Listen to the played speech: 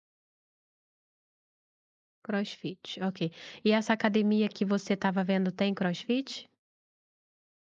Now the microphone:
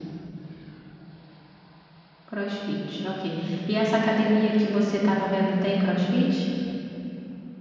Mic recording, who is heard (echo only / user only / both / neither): echo only